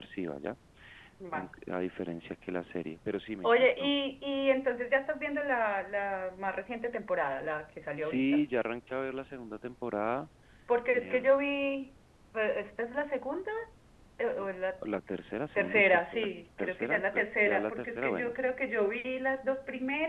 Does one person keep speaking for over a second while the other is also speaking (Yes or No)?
Yes